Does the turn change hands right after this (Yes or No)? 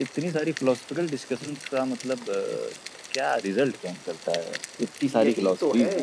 Yes